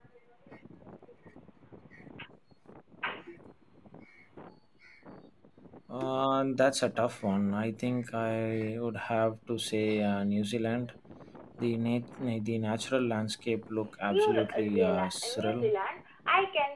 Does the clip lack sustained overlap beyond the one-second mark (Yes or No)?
No